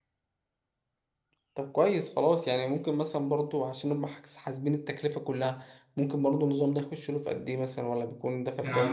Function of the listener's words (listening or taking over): taking over